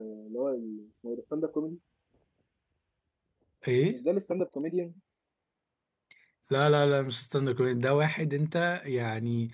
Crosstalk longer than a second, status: none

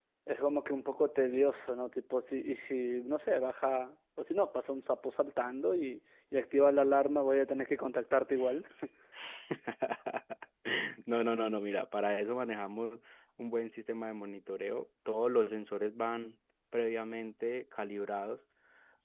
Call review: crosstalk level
none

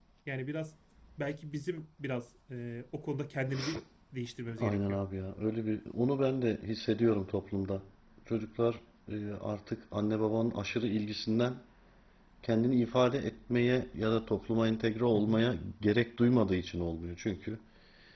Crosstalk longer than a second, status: none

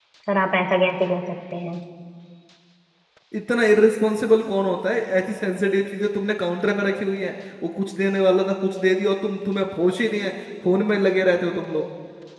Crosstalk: none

